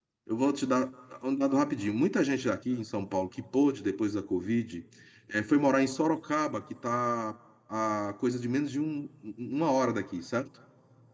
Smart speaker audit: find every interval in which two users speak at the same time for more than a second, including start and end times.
none

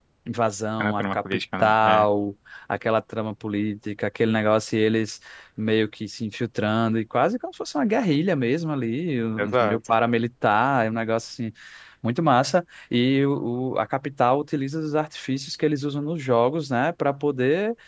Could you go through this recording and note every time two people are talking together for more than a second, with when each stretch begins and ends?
0.8-2.0

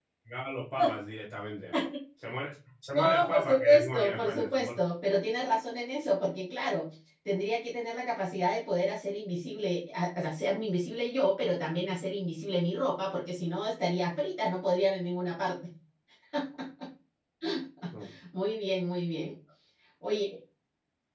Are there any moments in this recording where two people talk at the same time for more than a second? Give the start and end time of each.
3.0-4.7

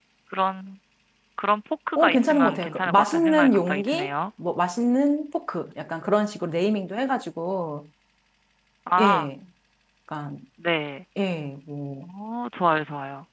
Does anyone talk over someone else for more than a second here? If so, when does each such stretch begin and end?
2.0-4.1

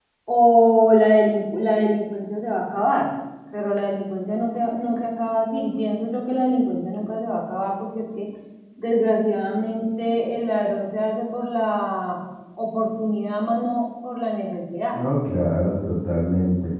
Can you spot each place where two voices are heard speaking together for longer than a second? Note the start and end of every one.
none

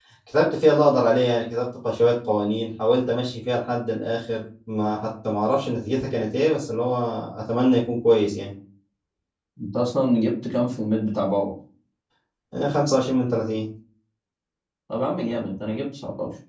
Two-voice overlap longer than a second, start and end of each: none

